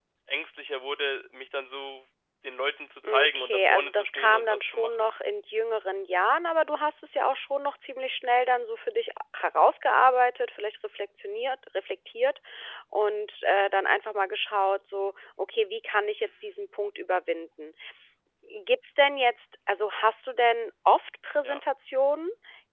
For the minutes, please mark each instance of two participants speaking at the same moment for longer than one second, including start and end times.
3.0-5.1

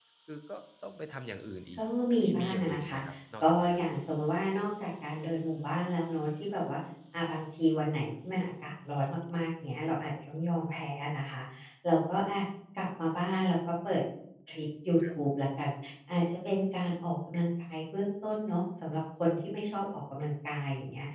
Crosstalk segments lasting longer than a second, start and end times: 1.8-3.0

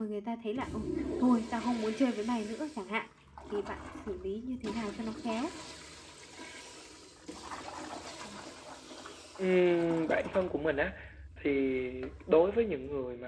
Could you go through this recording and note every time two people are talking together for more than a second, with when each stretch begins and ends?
none

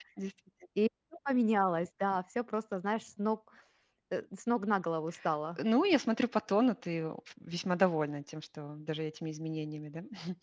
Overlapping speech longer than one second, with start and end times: none

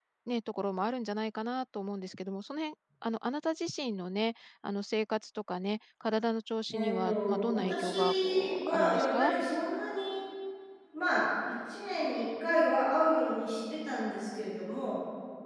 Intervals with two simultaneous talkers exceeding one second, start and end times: 6.7-9.3

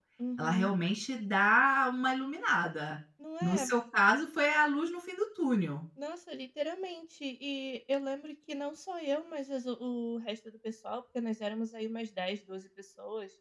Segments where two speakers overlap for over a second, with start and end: none

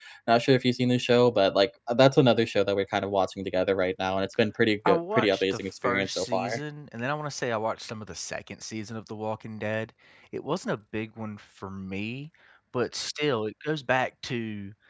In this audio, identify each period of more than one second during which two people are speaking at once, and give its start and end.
4.9-6.6

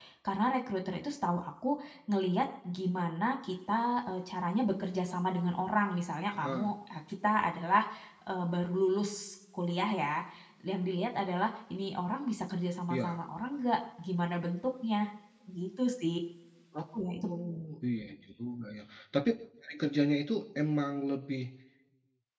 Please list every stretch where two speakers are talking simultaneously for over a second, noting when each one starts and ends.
none

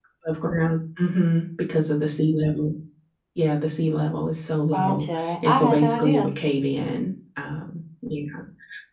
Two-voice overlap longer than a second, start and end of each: 4.7-6.2

